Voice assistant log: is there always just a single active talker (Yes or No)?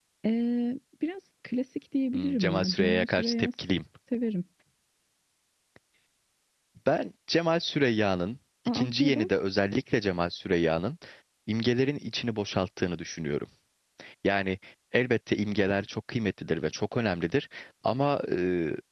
No